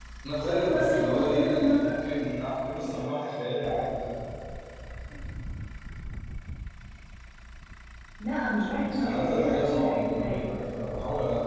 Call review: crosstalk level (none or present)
present